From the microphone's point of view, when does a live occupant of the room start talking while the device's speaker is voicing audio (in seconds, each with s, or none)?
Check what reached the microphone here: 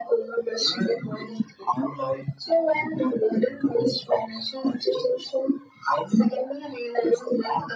none